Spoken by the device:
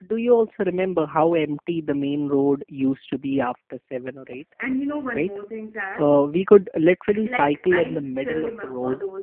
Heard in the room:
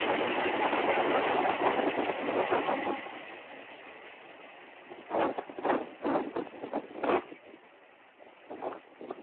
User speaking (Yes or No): No